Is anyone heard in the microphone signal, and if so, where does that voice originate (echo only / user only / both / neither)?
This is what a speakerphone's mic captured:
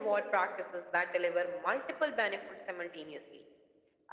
echo only